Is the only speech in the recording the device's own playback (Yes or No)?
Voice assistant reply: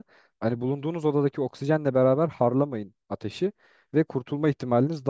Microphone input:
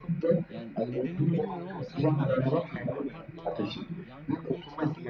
No